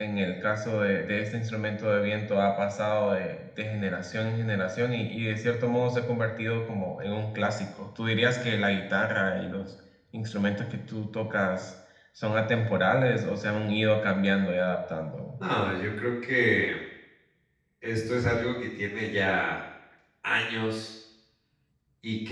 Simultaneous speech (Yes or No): No